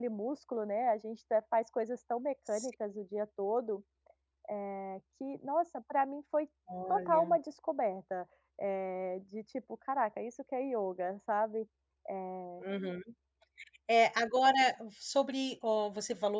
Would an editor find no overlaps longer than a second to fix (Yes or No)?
Yes